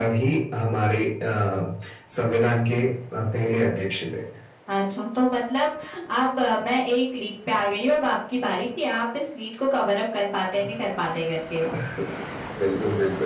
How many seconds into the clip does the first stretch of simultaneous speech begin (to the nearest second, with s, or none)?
none